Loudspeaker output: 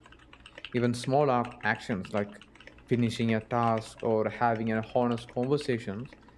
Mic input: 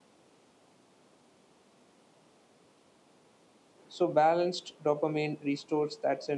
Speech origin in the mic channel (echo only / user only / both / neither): user only